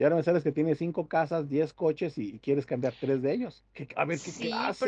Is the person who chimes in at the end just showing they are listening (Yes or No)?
No